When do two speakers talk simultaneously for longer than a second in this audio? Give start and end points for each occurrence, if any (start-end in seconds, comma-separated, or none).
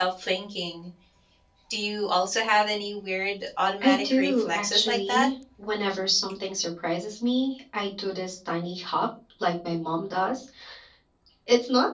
3.8-5.3